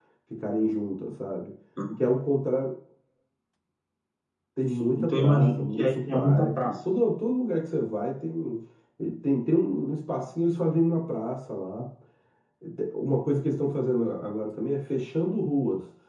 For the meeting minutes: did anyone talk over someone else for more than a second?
Yes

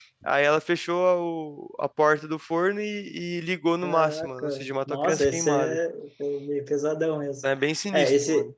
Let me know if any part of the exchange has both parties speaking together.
Yes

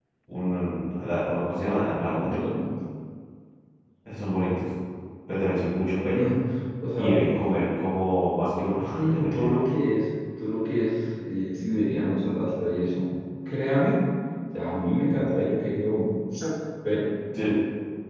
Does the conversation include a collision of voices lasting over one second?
No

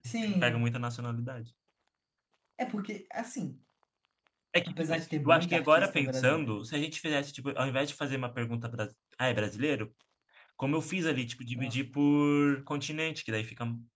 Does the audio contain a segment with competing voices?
Yes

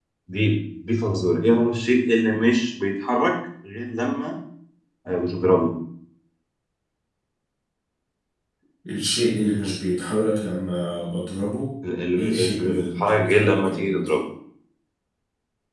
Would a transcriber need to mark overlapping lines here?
Yes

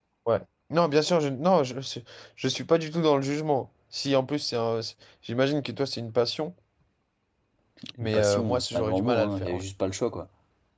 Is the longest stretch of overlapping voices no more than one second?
No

